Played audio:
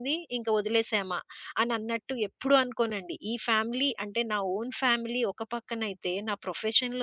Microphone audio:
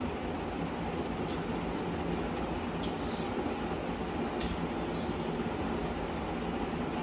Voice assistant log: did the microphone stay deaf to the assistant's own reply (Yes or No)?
Yes